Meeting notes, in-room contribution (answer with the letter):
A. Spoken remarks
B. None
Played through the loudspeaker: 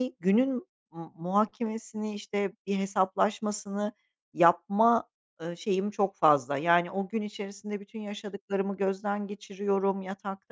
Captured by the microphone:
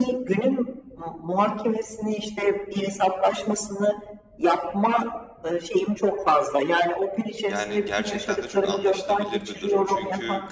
A